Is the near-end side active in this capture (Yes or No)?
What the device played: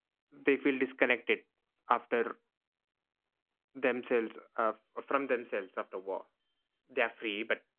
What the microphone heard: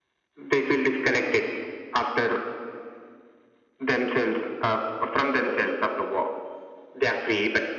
No